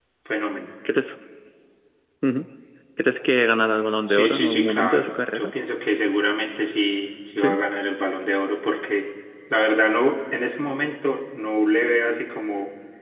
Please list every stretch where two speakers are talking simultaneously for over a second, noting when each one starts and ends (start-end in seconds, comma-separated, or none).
4.1-5.5